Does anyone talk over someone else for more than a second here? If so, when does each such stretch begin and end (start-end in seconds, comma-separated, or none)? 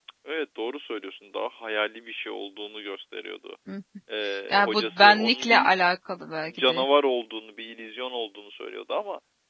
4.5-5.7